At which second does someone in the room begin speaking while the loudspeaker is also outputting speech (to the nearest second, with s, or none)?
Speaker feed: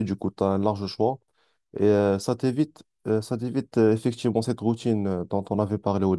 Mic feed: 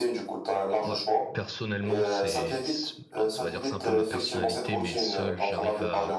1 s